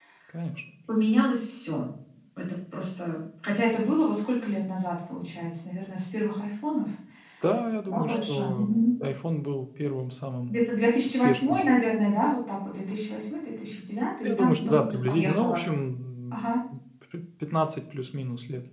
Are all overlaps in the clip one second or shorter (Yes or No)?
No